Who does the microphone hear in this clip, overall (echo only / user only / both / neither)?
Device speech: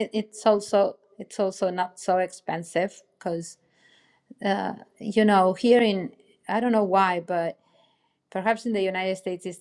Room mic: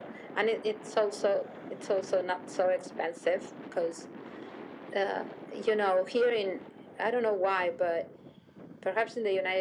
echo only